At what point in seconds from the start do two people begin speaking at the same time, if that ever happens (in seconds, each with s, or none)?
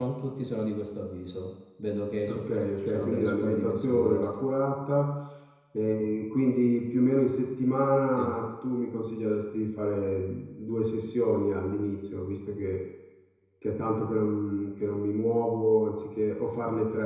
2.3 s